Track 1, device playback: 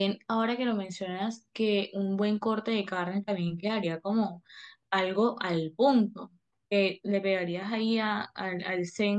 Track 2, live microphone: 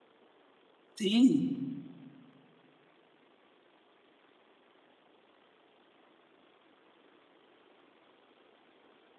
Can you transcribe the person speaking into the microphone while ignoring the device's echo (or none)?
Sí,